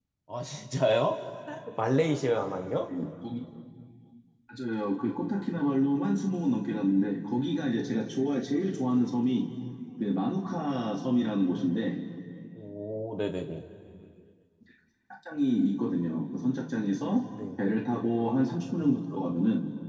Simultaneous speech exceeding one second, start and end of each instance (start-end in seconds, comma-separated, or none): none